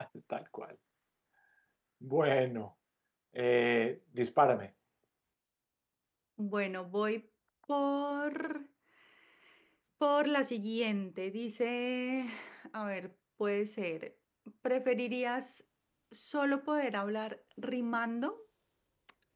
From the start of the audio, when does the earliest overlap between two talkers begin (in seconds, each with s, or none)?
none